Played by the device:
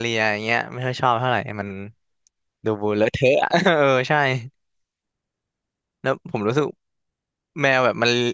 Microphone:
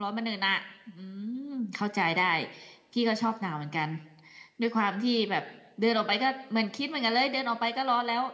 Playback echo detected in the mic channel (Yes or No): No